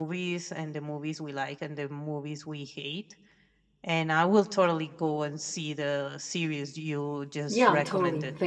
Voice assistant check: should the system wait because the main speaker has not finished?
No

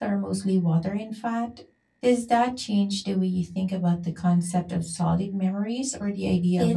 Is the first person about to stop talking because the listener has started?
Yes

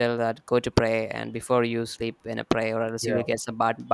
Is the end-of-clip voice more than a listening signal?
No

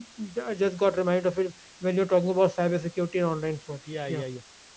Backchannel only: No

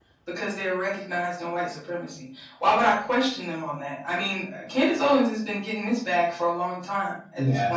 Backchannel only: Yes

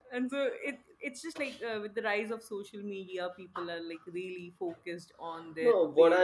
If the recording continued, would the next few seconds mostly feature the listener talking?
Yes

